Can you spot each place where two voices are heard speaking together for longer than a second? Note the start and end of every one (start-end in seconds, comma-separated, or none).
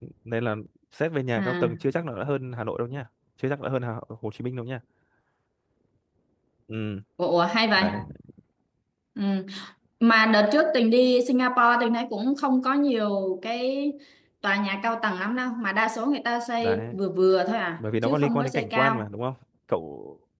17.8-19.1